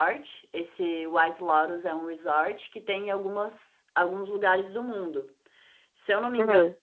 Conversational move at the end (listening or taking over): listening